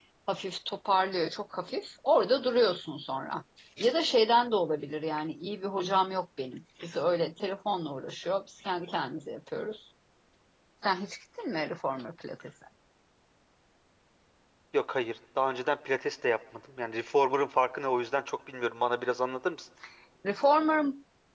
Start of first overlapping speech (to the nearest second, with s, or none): none